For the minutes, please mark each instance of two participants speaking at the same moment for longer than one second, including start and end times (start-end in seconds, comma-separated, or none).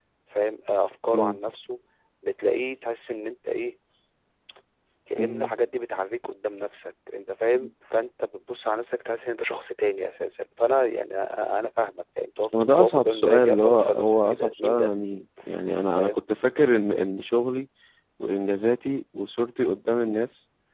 12.8-14.9